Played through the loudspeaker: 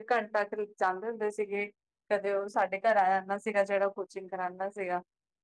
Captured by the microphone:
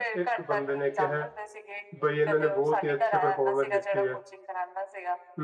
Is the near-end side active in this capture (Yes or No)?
Yes